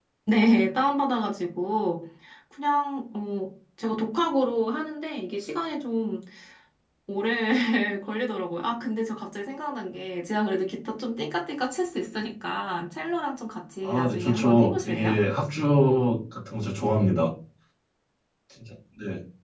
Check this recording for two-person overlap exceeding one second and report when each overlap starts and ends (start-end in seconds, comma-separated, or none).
13.8-15.2